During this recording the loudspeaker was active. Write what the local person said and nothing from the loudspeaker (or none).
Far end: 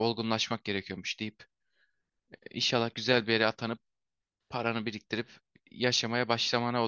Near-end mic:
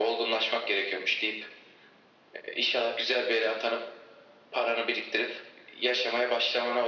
none